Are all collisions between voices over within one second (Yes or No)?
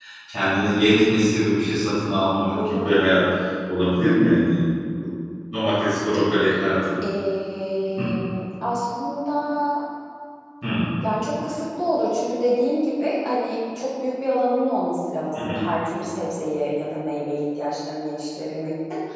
Yes